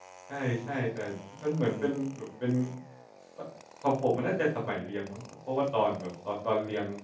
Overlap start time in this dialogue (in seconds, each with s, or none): none